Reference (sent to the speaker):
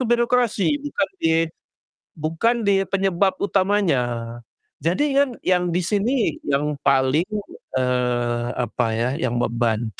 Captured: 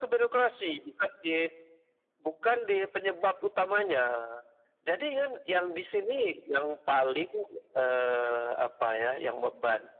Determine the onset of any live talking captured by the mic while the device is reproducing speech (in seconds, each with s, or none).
none